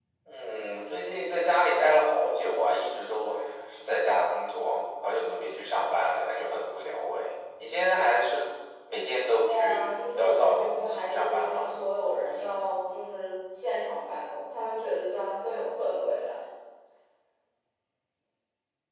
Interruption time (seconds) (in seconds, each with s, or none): 9.4 s